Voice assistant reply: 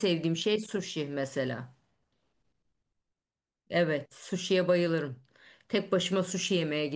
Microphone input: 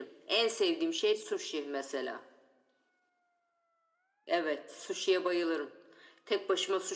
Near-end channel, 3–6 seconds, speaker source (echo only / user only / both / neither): echo only